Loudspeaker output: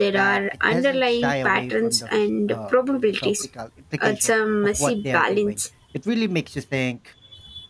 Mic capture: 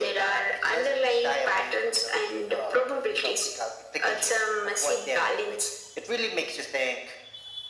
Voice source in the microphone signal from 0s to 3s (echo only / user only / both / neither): echo only